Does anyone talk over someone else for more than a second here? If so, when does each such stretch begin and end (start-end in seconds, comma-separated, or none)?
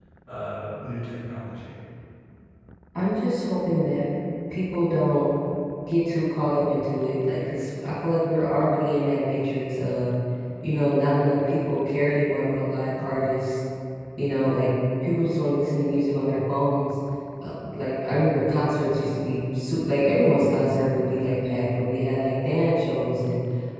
none